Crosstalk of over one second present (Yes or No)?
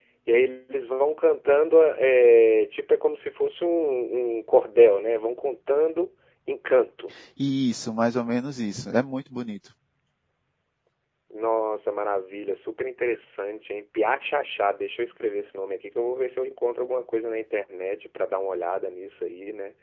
No